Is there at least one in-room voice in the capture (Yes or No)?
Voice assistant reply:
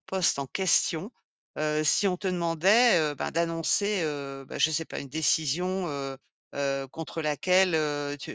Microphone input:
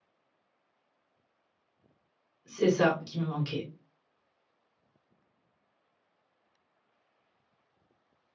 Yes